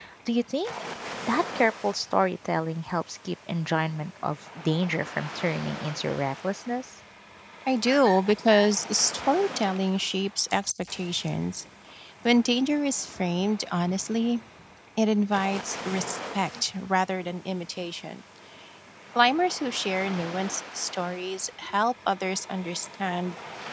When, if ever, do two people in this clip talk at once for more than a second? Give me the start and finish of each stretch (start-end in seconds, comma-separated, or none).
none